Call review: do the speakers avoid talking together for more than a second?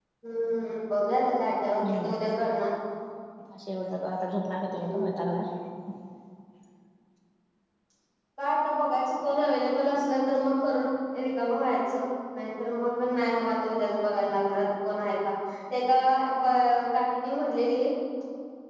Yes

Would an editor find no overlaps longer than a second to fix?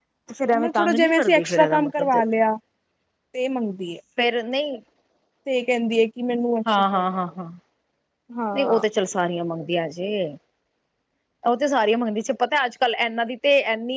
No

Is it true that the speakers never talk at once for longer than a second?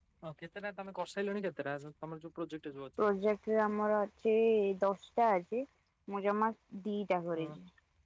Yes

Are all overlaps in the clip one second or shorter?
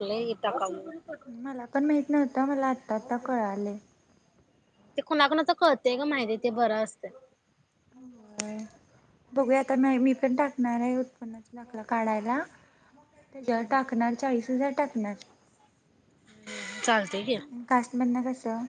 Yes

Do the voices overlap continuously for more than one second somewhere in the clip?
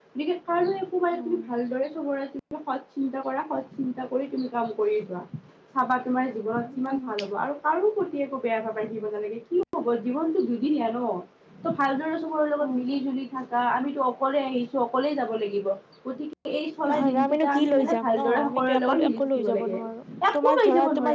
Yes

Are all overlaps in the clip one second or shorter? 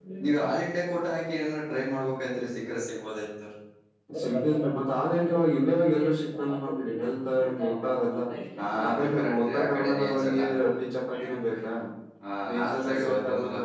No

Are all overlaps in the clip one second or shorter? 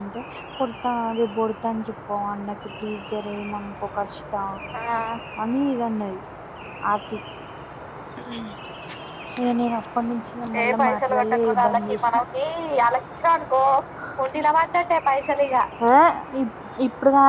No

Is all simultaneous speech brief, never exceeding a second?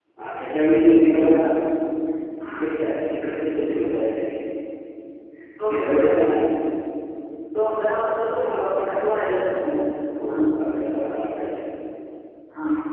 No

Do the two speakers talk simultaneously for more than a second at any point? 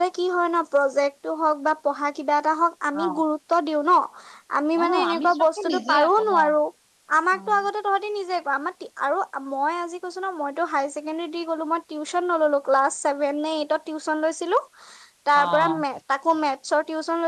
Yes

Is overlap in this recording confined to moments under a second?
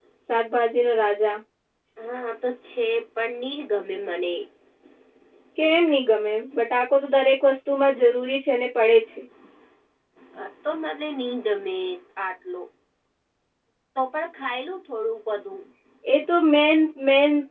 Yes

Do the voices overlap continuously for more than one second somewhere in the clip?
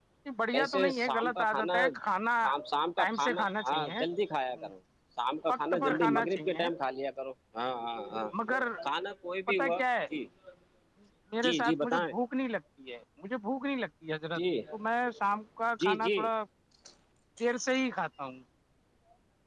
Yes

